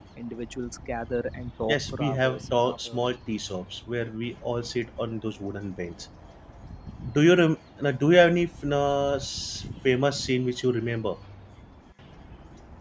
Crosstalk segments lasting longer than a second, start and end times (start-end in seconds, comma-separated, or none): 1.7-3.0